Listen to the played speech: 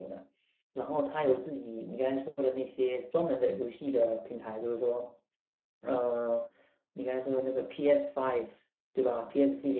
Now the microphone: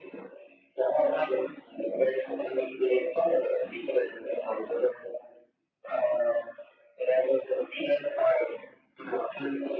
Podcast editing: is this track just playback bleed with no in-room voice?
Yes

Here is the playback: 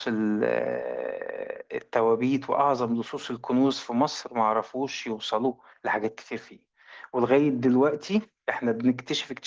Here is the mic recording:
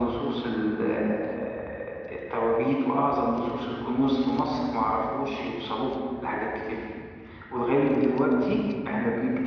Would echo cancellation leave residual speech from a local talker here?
No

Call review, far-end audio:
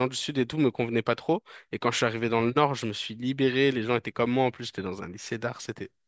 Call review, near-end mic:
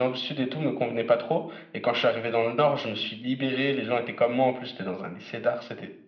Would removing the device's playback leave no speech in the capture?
Yes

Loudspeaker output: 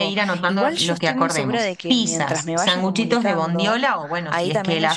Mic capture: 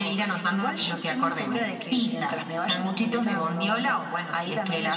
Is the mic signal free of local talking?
Yes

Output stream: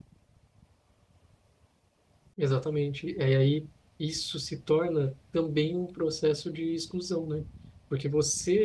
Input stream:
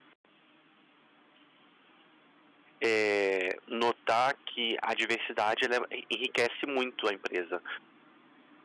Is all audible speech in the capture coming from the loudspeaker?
No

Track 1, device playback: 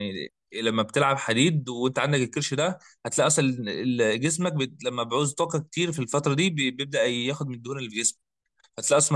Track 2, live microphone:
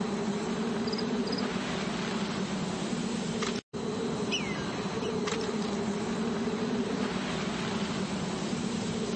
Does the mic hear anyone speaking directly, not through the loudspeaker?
No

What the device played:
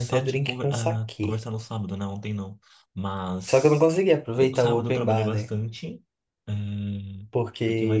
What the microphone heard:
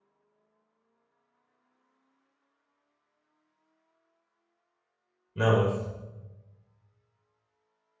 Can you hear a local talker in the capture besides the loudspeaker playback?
Yes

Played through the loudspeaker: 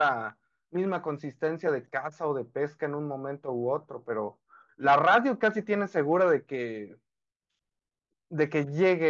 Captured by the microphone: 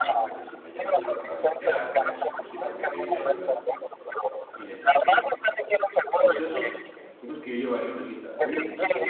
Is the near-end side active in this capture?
Yes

